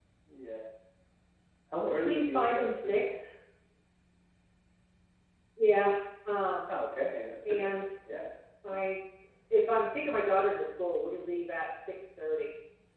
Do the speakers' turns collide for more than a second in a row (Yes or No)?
Yes